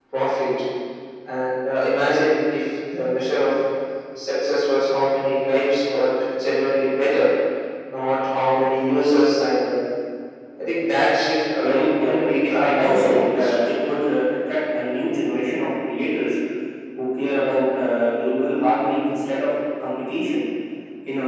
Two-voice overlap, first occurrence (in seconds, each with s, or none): 11.6 s